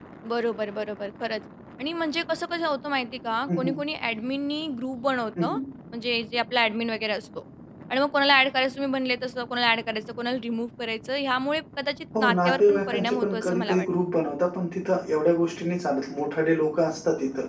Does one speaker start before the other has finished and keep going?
Yes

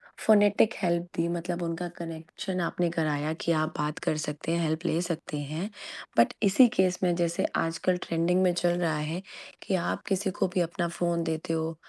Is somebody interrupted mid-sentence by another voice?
No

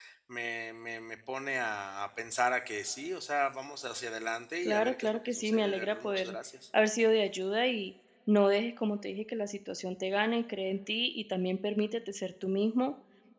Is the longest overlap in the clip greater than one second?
Yes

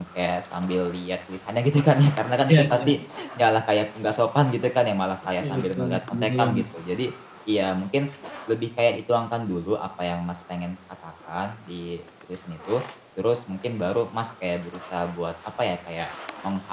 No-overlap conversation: No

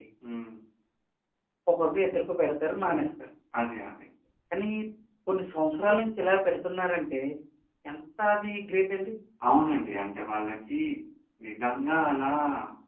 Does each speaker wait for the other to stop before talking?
Yes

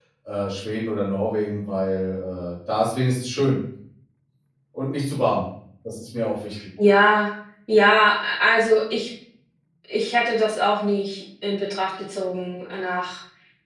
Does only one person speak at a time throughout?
Yes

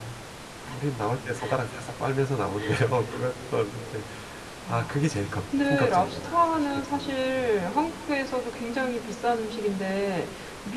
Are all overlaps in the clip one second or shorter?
No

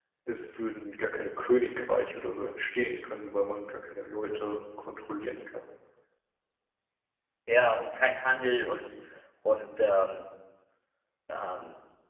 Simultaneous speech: No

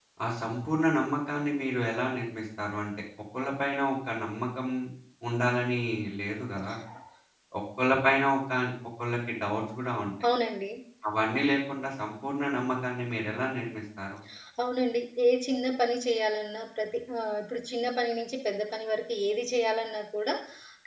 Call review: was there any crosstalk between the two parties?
No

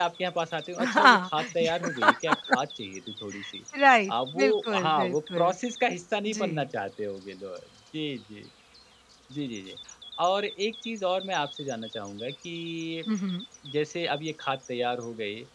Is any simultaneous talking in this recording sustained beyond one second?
Yes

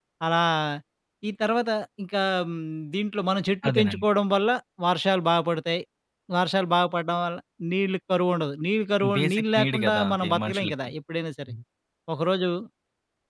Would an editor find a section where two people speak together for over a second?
Yes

